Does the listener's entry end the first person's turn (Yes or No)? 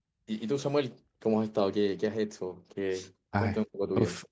Yes